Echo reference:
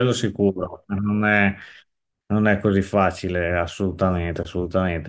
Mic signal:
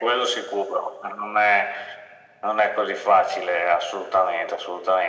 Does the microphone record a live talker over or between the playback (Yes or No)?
No